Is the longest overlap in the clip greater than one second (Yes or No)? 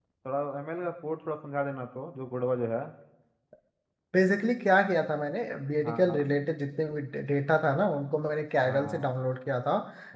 No